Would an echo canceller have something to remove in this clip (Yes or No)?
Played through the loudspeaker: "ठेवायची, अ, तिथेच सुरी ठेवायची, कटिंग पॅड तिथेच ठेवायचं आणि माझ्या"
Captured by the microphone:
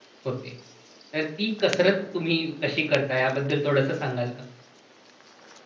No